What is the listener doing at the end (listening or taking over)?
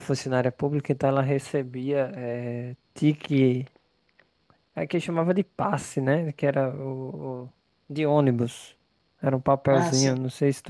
listening